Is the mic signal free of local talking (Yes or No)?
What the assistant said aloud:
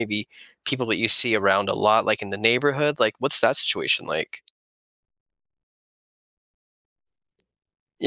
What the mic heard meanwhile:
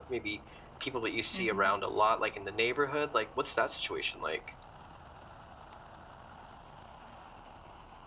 No